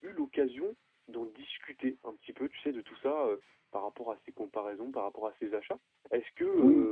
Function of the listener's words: listening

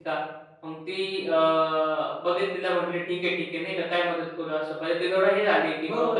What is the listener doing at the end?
taking over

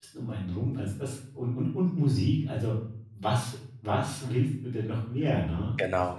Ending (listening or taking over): taking over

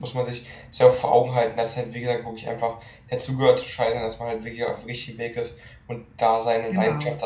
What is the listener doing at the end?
listening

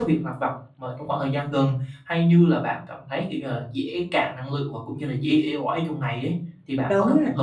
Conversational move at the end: taking over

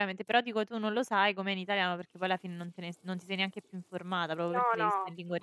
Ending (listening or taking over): taking over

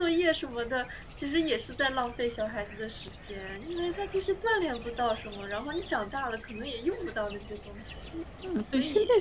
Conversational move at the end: taking over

